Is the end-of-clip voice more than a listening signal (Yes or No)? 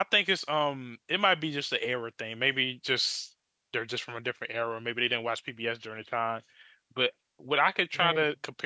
No